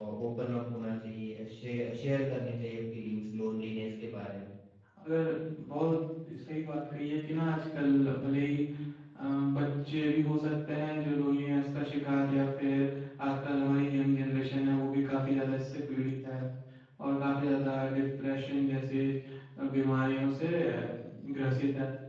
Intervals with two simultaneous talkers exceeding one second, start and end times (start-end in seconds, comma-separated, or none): none